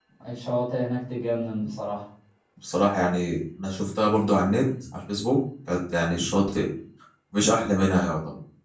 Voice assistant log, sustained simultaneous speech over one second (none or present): none